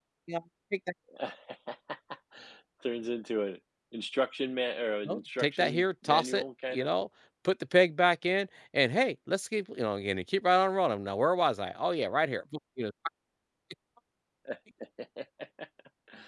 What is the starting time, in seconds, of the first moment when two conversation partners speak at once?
5.0 s

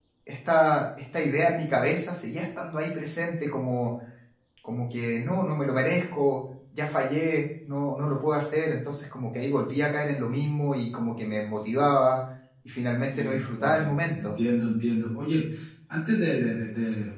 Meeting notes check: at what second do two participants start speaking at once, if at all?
13.1 s

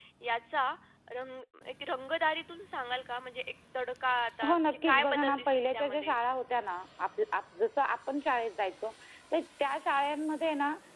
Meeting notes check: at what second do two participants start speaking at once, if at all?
4.4 s

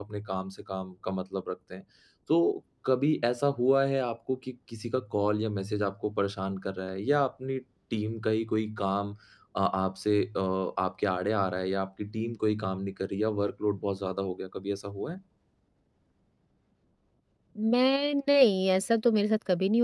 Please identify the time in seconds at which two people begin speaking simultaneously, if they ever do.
none

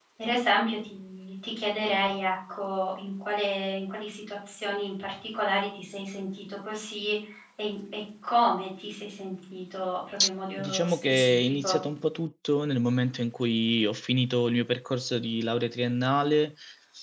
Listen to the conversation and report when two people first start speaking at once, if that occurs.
10.6 s

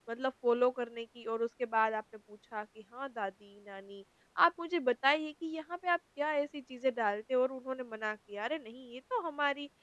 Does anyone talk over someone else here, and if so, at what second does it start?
none

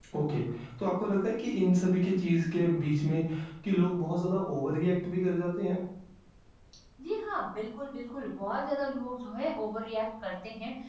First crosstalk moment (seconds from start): none

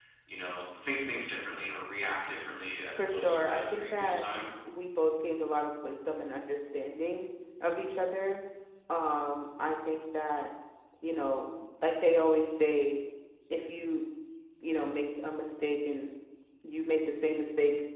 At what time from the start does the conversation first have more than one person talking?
3.0 s

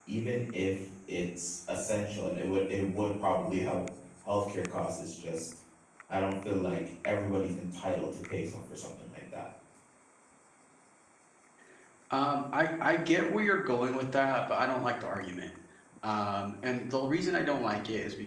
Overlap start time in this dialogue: none

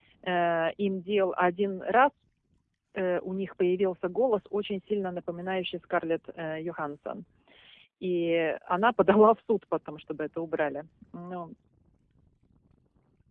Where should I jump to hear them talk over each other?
none

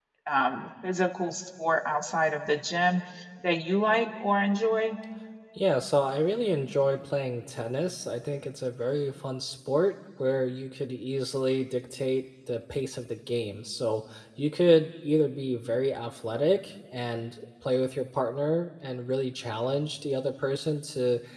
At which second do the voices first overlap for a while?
none

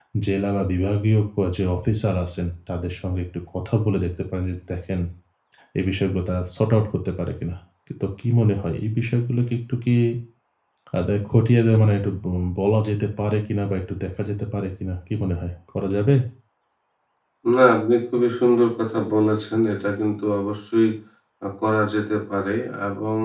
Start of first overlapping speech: none

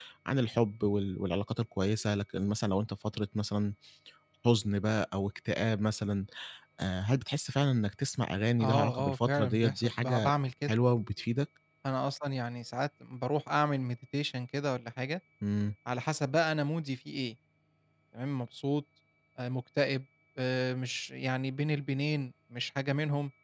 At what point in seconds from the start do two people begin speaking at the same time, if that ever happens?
8.6 s

